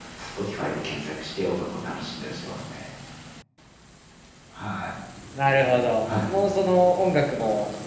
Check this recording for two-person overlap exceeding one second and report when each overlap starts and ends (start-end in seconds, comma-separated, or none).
none